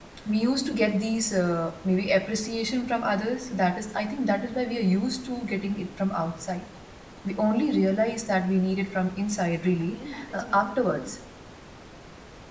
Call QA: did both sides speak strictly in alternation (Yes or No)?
No